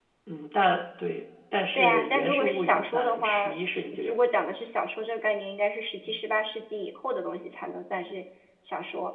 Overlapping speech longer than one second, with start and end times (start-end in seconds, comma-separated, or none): 1.7-3.5